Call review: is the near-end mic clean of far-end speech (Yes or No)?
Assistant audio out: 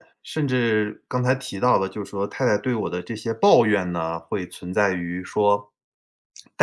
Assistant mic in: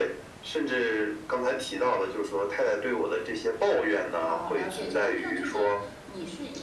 No